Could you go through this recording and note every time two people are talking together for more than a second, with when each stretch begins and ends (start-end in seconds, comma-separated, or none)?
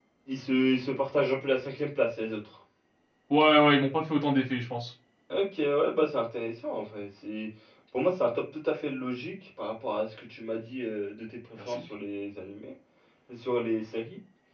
none